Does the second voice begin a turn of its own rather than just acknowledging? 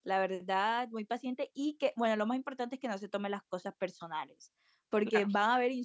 No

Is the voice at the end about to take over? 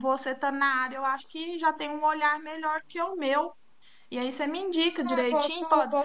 Yes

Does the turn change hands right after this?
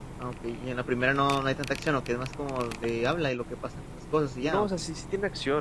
Yes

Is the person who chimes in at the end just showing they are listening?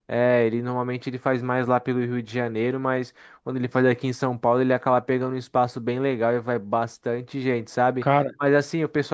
Yes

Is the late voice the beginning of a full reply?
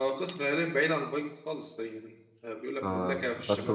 Yes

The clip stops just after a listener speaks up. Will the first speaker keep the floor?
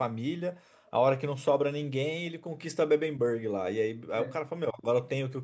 Yes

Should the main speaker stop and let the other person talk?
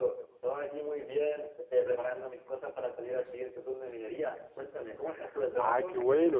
Yes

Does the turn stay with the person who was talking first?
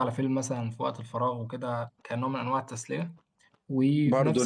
No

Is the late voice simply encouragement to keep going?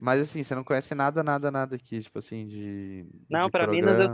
No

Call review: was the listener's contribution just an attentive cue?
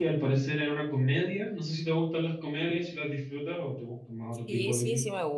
No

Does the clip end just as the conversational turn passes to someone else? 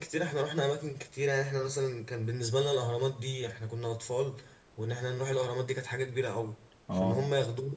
No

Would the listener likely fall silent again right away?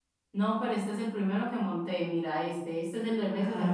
No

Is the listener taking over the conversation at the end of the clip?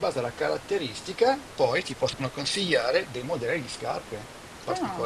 Yes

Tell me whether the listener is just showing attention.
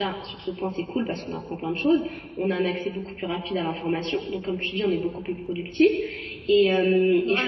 Yes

